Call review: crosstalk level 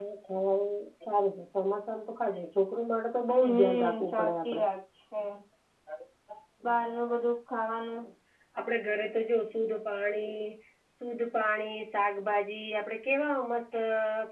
present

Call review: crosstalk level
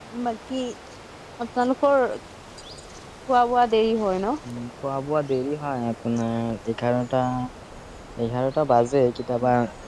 none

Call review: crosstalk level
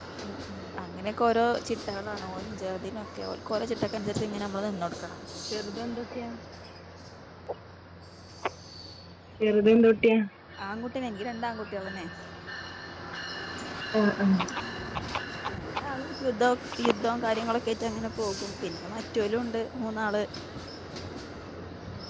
none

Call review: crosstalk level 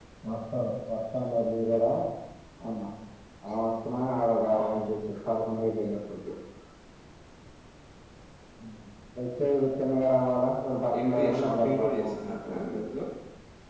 present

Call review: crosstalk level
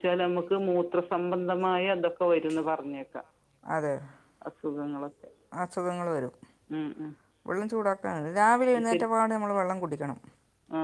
none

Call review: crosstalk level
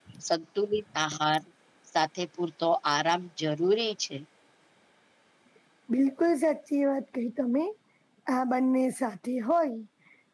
none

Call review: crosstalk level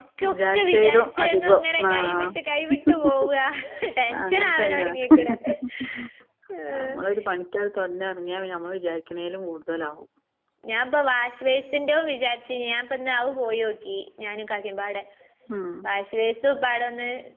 present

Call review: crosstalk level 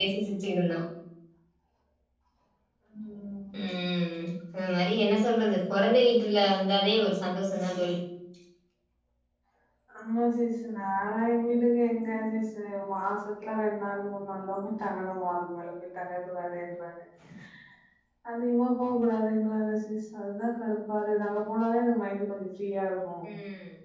none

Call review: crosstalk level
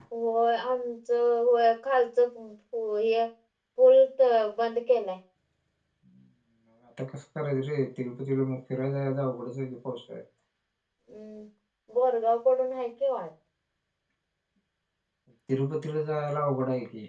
none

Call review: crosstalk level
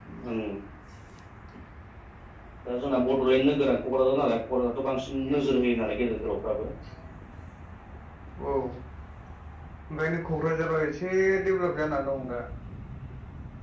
none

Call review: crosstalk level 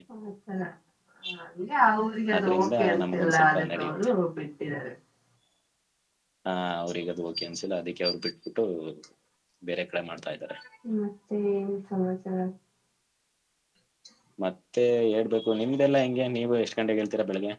present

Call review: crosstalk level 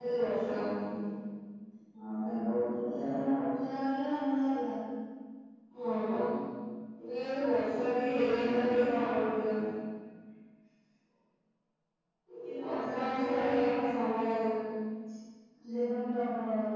present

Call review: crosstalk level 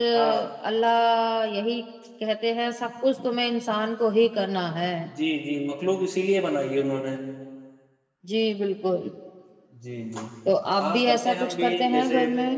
present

